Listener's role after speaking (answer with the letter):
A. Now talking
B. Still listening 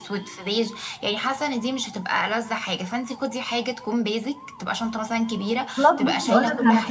A